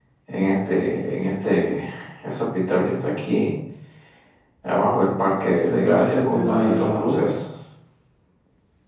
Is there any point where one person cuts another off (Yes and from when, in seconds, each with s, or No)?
Yes, from 5.7 s